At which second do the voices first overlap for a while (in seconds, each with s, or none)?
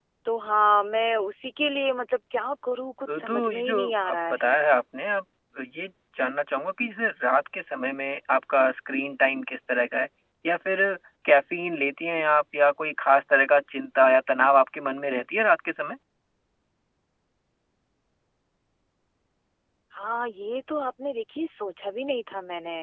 3.1 s